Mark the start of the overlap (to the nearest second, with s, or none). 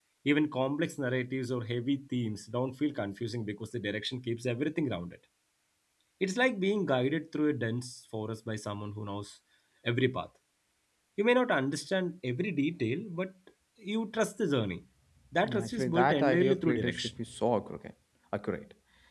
15 s